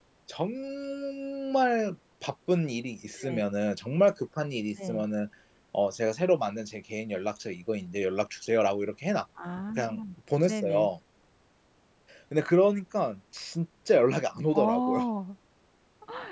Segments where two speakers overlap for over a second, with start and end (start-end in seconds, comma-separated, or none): none